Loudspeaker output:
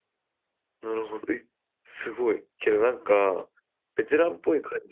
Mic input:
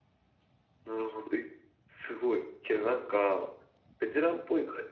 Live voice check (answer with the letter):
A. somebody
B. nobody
B